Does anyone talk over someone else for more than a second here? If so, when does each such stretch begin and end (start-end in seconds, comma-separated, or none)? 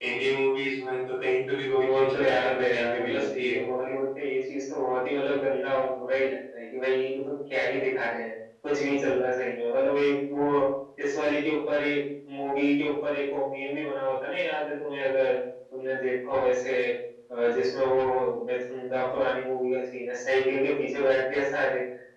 1.8-3.6